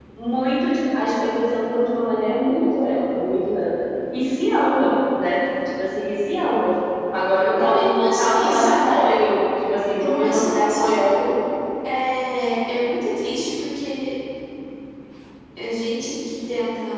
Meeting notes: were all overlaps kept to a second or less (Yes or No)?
No